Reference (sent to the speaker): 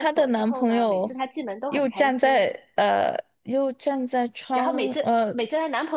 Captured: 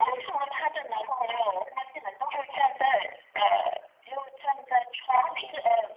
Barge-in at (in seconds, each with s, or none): none